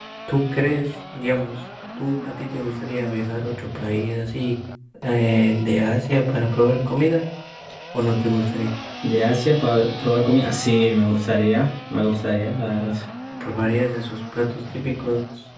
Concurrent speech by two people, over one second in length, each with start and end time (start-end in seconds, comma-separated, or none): none